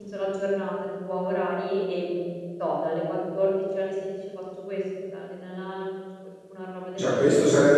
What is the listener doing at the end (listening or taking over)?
taking over